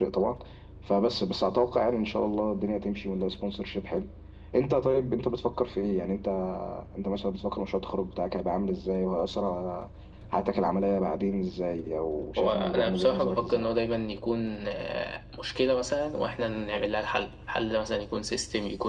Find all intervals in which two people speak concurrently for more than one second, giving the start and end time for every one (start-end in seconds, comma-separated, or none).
12.4-13.7